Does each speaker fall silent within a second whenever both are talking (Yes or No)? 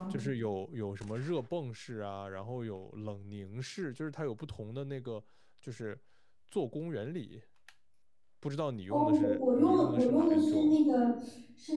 No